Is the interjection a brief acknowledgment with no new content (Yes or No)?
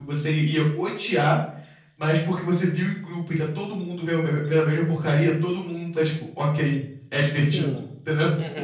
No